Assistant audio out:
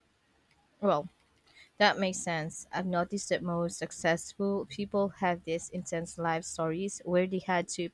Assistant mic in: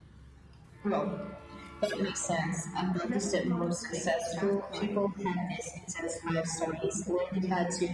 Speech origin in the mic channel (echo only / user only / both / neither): both